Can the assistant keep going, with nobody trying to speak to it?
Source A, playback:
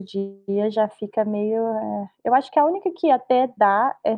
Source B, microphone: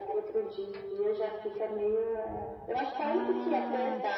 No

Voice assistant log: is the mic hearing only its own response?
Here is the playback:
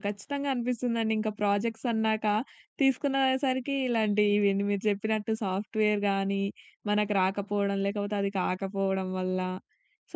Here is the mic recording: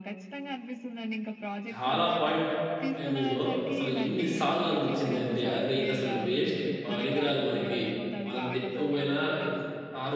No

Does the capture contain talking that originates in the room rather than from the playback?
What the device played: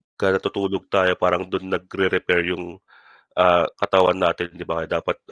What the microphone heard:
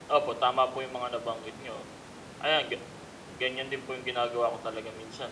Yes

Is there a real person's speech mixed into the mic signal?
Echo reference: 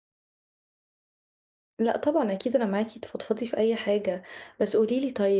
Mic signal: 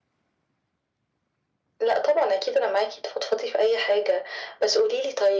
No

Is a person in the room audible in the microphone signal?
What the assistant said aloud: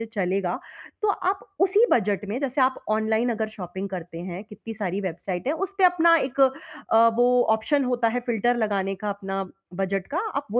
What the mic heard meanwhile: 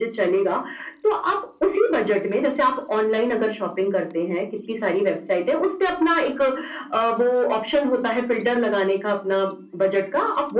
No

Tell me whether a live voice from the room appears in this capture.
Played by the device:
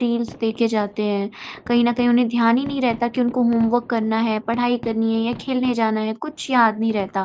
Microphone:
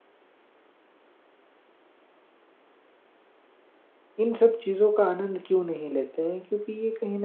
Yes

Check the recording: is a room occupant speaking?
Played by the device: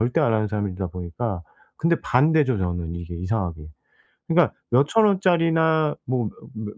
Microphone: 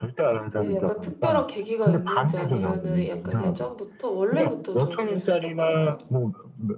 Yes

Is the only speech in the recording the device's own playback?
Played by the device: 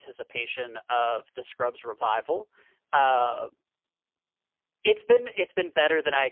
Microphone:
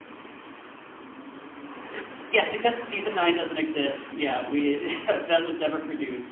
No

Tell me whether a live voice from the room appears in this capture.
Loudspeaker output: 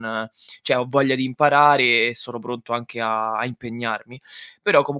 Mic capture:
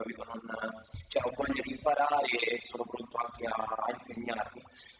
No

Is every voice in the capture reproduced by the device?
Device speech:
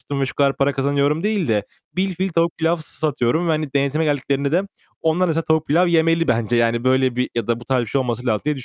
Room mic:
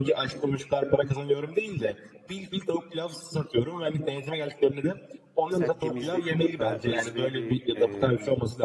No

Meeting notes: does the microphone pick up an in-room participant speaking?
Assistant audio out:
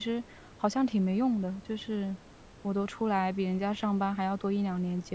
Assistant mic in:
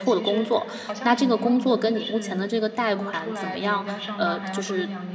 Yes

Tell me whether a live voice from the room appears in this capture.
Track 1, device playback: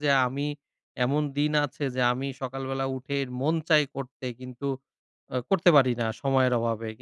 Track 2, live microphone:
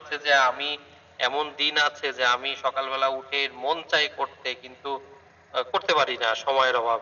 No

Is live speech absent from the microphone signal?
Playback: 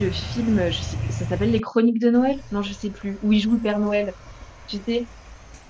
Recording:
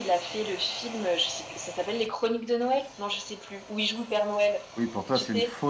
No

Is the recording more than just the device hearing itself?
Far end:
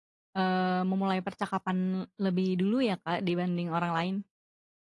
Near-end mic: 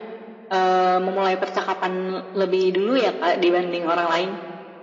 No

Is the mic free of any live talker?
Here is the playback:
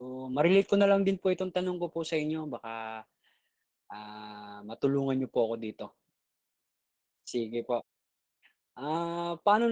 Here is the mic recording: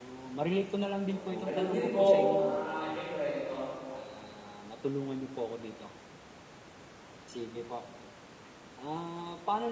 No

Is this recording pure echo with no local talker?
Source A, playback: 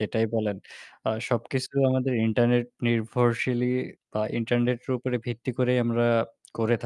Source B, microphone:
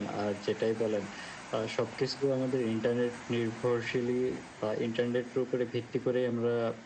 Yes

